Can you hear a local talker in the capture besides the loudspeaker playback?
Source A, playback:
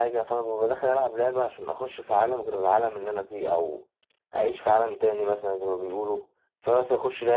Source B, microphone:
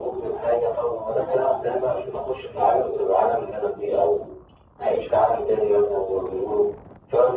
No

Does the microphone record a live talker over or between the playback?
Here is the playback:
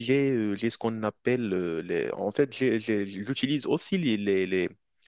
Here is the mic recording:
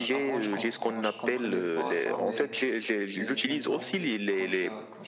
Yes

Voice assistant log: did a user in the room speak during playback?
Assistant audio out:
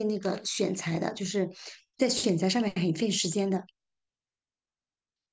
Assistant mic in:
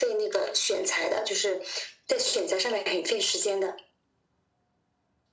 No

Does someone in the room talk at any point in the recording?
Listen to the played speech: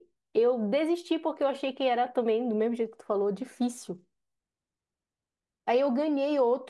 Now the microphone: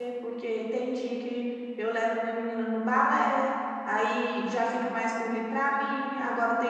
Yes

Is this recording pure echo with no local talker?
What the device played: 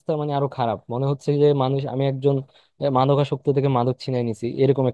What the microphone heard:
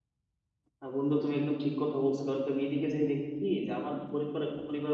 No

